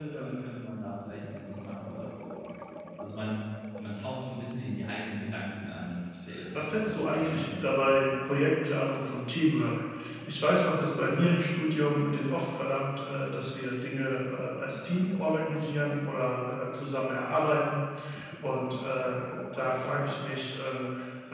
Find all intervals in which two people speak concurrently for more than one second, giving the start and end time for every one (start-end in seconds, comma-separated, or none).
6.5-8.1